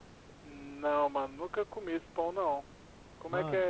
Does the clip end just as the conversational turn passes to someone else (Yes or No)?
Yes